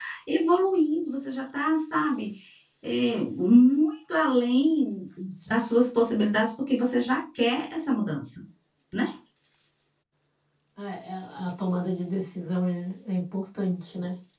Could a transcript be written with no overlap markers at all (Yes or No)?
Yes